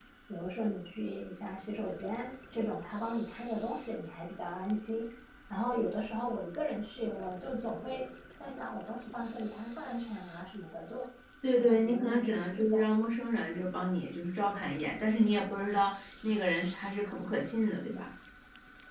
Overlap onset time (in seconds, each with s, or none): 11.6 s